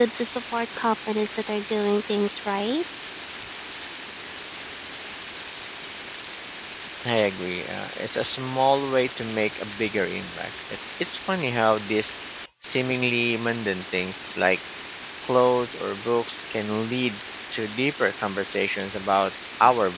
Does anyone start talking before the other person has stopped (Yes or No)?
No